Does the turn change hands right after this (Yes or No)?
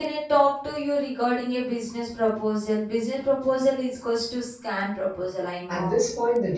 Yes